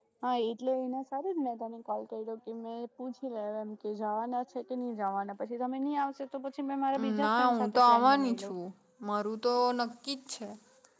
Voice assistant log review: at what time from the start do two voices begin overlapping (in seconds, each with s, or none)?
7.2 s